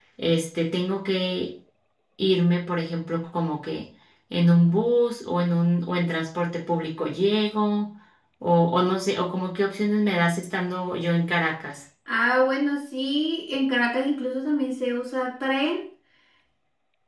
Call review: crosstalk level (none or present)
none